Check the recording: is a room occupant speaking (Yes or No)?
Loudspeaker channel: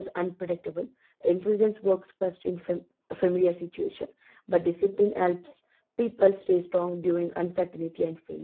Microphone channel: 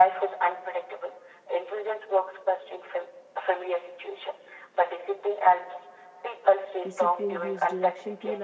Yes